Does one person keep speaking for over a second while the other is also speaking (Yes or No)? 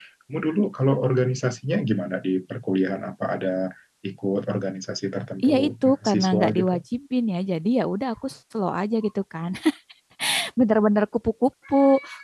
Yes